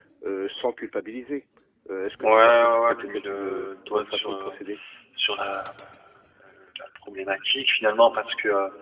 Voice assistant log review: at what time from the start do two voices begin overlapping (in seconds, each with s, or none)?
2.2 s